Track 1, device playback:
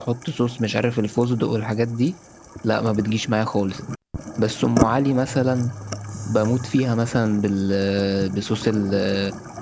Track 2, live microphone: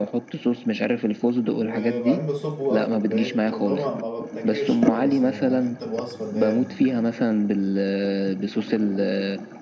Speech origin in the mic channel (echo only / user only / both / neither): both